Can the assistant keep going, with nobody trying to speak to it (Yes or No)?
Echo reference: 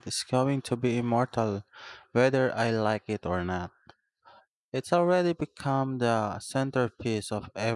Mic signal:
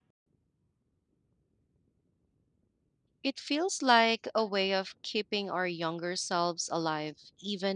No